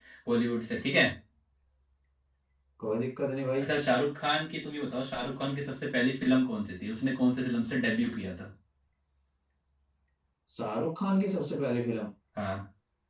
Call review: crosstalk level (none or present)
none